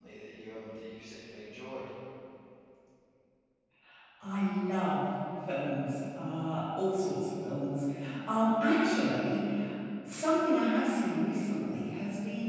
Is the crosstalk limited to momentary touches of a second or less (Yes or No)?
Yes